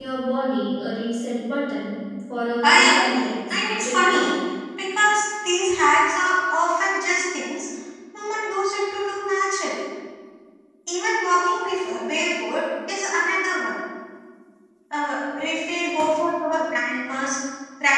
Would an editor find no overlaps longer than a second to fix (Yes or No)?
No